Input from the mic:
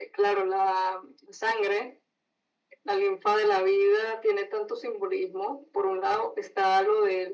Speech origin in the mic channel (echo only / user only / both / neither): echo only